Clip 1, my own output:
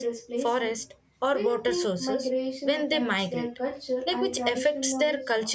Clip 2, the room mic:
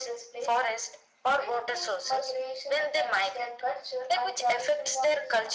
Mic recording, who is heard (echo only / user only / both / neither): echo only